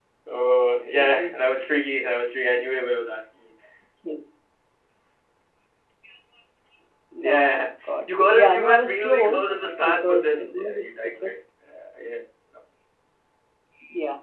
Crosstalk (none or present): present